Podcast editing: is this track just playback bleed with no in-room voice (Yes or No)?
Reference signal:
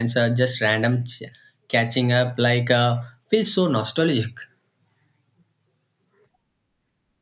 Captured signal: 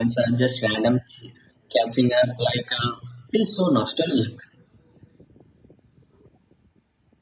Yes